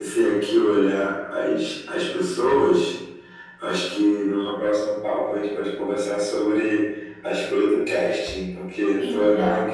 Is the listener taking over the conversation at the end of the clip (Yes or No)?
No